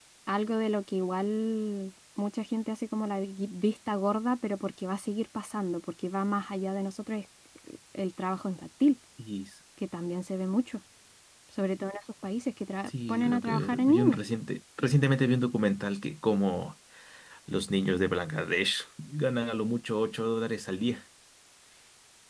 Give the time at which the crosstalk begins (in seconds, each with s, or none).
12.9 s